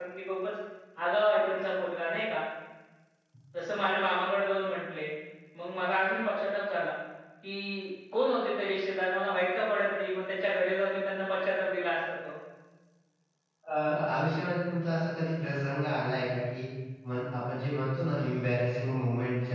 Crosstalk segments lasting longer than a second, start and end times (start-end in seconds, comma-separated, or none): none